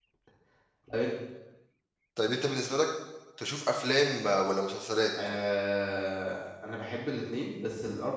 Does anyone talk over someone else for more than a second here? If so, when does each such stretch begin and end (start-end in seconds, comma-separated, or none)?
none